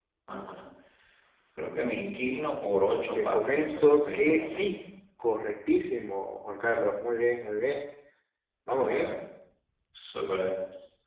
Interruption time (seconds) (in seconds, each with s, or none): 3.2 s